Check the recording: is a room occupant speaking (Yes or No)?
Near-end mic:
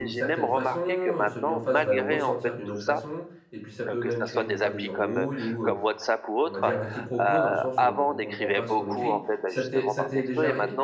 Yes